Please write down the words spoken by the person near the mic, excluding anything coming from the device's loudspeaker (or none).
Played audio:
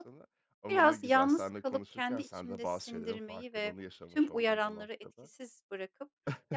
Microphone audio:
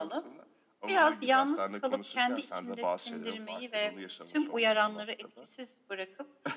none